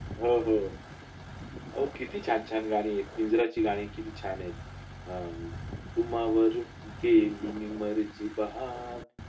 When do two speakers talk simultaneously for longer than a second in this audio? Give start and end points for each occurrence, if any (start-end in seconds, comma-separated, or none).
none